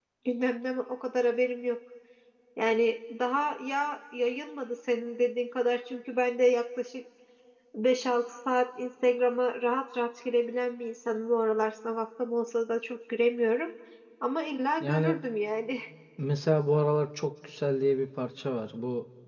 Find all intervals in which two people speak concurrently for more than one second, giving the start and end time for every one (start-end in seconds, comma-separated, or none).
none